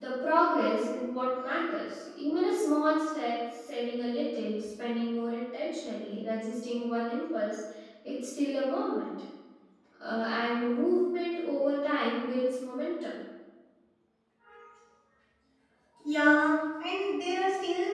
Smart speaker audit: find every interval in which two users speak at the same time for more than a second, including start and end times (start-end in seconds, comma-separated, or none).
none